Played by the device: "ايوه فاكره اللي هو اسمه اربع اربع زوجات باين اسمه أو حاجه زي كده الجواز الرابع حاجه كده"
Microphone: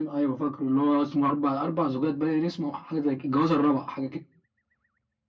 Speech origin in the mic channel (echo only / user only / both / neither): echo only